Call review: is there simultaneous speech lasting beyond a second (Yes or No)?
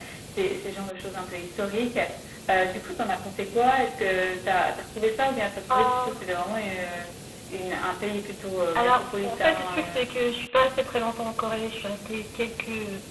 Yes